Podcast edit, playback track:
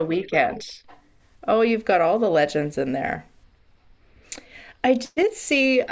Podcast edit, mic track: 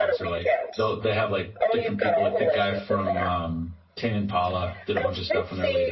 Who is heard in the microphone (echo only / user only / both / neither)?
both